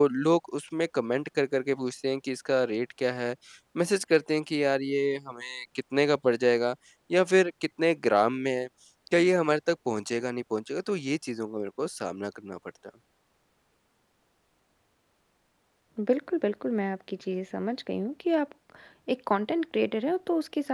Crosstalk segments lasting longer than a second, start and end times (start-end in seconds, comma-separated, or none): none